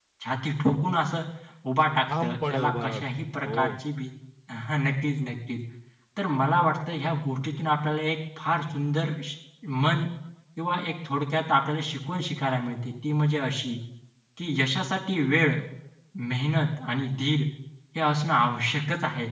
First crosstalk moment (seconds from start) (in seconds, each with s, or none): 2.2 s